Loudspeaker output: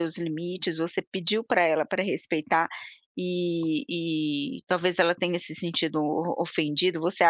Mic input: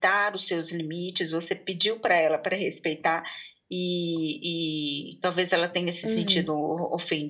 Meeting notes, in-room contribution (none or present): present